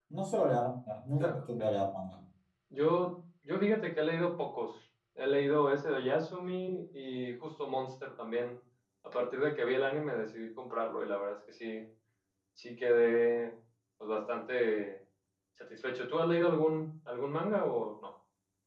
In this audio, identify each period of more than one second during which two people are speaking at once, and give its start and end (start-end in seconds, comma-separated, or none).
none